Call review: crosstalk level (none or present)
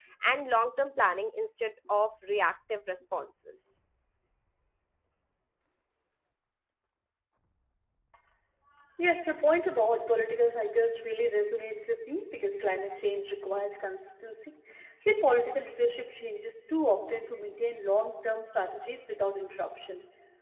none